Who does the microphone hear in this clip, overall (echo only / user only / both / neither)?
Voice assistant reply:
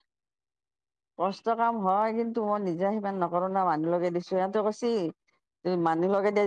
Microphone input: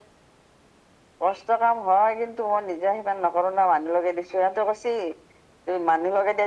echo only